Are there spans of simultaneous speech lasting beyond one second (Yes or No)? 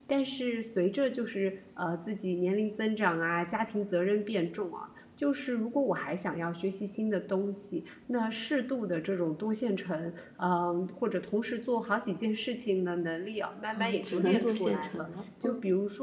Yes